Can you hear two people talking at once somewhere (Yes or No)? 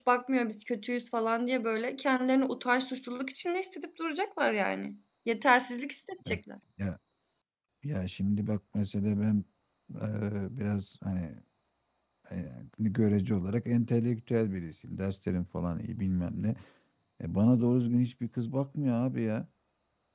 No